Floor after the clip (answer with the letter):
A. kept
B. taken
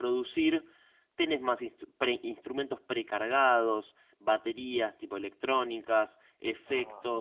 A